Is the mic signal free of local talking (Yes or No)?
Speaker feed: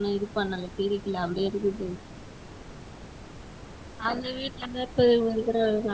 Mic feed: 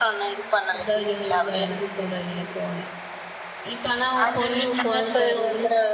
No